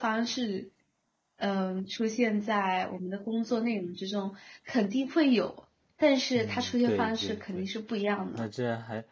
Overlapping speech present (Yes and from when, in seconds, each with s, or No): Yes, from 6.3 s